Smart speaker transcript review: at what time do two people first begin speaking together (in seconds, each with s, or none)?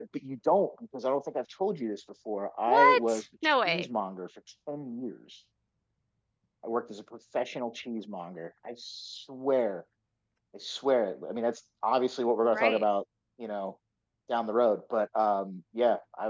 2.7 s